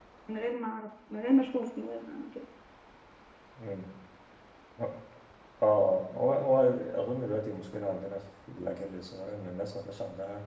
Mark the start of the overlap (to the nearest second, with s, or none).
none